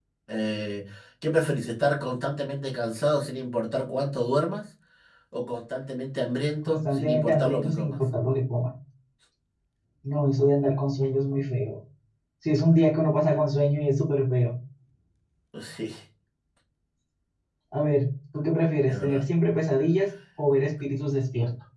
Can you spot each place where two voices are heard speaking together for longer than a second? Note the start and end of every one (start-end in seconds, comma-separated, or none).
6.7-8.0